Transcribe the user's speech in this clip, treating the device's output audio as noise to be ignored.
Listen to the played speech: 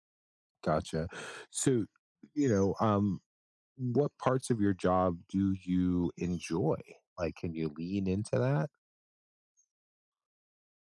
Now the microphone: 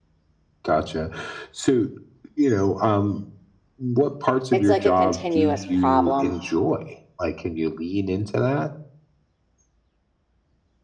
It's like a continuous problem.

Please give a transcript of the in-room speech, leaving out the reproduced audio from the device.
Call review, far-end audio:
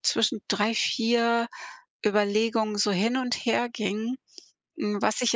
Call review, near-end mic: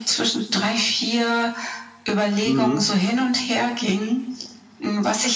Mhm.

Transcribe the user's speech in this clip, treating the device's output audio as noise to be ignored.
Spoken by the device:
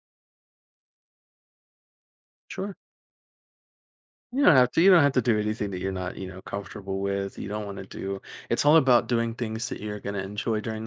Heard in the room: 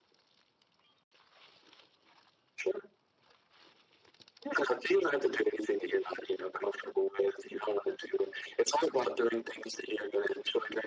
none

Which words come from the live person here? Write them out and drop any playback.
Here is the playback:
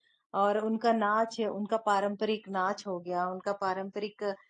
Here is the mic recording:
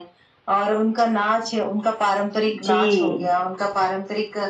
जी,

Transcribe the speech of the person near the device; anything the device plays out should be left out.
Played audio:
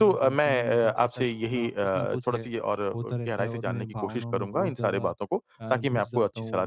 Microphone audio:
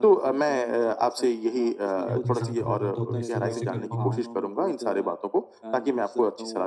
या अपने साथ होगा तो अब मैं इसको ऐसे कर पाऊँगा।

